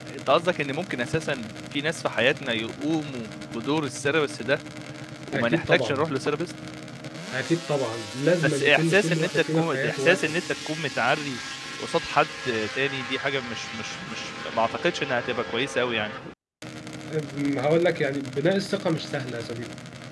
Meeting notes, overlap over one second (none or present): present